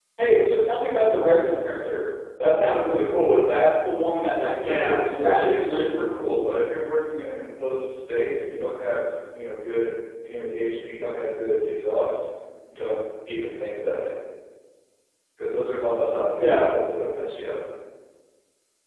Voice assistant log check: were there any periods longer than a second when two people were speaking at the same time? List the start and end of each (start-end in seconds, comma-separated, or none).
4.6-6.0